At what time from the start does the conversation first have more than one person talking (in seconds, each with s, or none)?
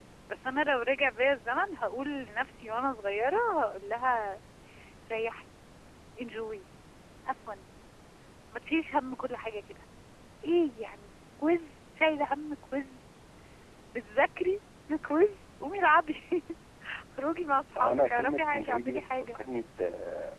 17.8 s